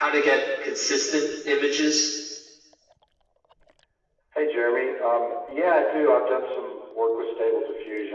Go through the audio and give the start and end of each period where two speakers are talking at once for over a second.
none

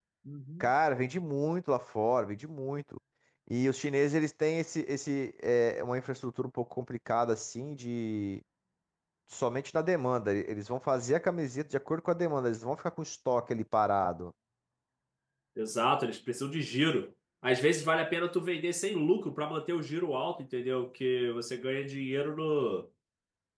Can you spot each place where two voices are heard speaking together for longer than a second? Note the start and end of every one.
none

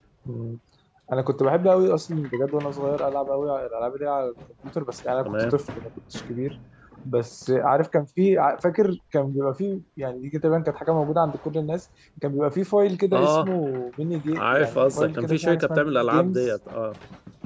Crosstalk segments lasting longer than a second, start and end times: 14.4-16.4

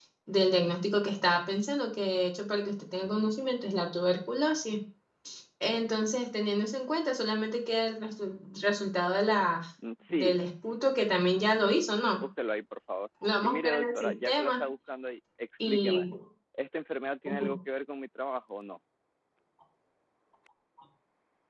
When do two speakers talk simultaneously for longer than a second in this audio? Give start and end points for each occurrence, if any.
13.4-14.6

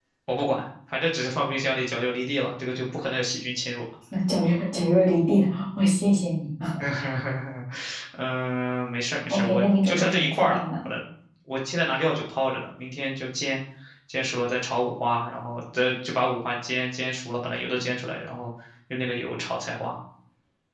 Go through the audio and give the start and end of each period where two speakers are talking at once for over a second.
9.3-10.6

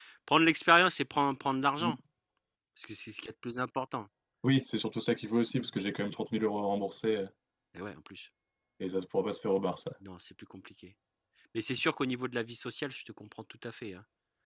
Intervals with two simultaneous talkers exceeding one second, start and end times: none

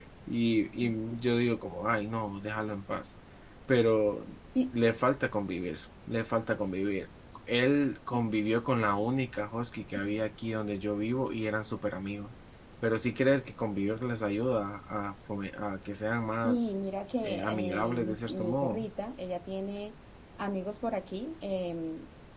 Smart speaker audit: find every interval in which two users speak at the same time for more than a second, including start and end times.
17.2-18.9

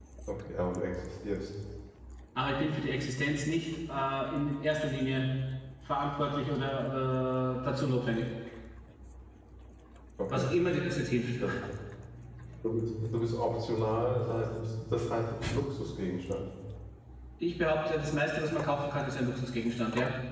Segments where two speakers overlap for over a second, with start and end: none

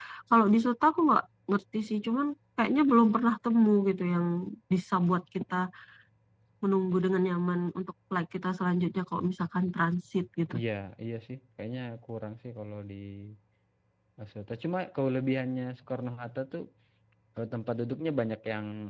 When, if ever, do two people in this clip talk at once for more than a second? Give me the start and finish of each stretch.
none

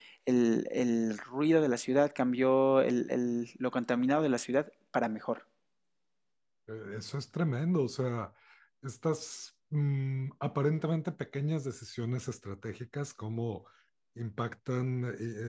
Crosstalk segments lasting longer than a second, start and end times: none

